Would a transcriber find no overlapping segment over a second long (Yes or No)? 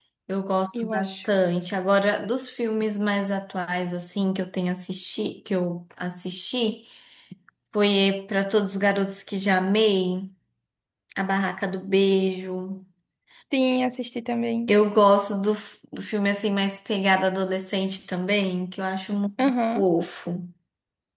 Yes